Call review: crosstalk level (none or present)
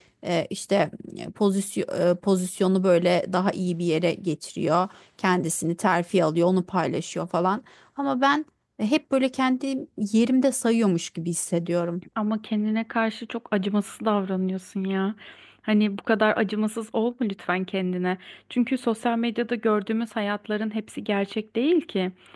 none